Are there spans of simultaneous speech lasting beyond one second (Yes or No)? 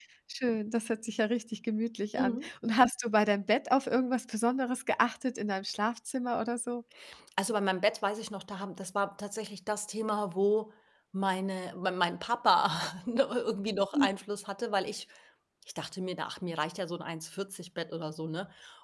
No